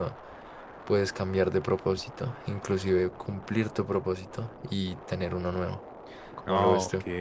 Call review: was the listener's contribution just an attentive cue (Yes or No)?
No